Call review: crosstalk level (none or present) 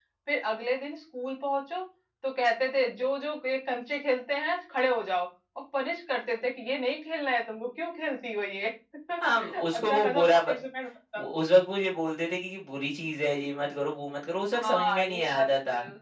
present